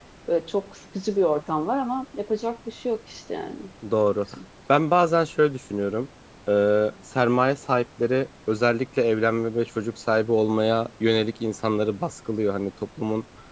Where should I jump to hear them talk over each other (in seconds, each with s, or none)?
none